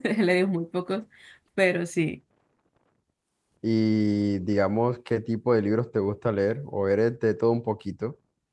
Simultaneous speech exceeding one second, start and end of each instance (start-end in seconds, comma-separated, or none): none